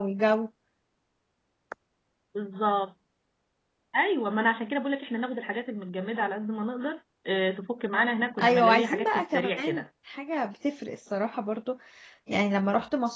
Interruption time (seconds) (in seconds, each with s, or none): 8.4 s